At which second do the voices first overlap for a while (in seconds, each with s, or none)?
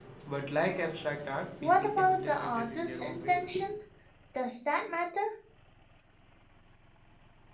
1.6 s